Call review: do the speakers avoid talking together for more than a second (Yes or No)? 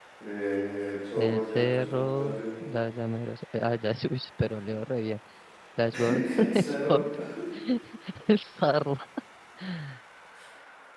No